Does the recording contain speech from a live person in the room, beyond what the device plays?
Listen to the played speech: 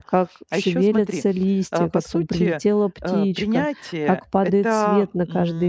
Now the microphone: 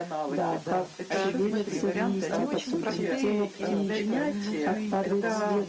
Yes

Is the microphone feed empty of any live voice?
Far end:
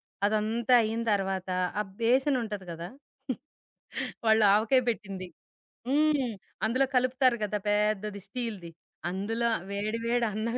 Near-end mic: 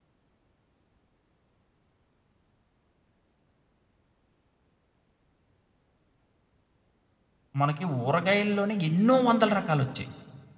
No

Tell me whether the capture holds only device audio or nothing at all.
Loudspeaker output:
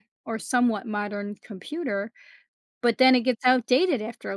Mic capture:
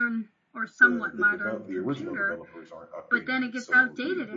No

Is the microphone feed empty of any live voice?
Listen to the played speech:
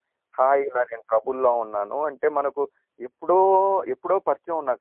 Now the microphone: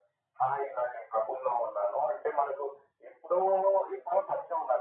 Yes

